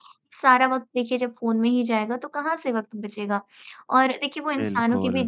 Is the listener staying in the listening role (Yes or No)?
Yes